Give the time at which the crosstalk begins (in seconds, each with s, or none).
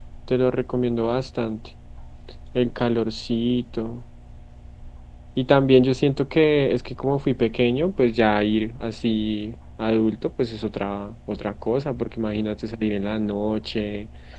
none